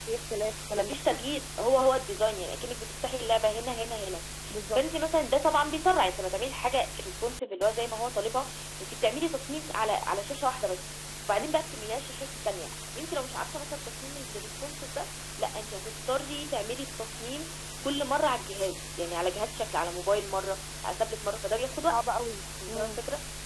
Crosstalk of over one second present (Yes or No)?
No